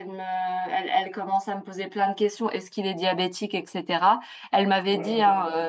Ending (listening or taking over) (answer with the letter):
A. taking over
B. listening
B